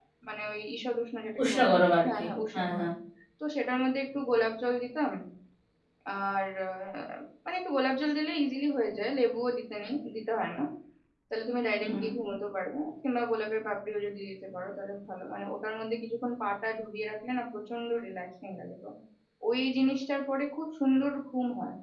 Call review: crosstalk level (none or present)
present